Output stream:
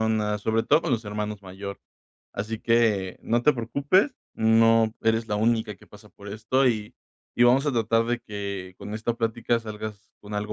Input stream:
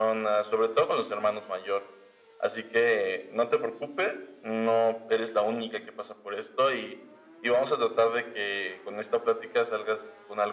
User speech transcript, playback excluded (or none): none